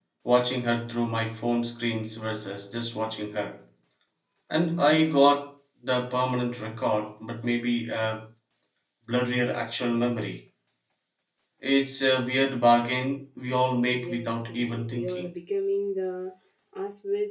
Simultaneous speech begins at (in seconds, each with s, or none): 13.9 s